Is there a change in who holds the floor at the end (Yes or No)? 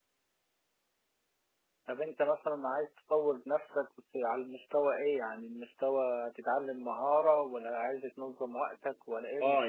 Yes